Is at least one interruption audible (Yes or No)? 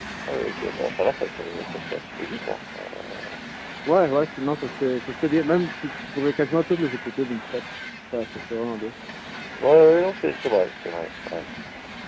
No